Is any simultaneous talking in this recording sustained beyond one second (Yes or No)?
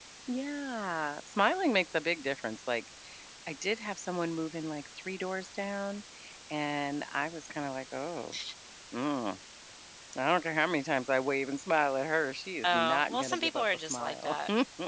Yes